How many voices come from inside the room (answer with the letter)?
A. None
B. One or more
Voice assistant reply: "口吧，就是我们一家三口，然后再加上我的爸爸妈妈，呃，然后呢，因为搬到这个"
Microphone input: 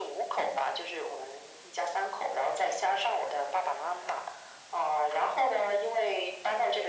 A